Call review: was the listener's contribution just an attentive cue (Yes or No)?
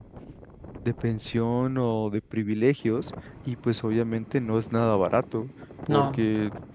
Yes